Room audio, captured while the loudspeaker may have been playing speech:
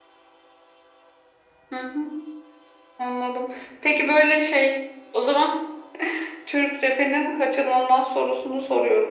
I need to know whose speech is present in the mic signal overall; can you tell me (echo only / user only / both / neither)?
echo only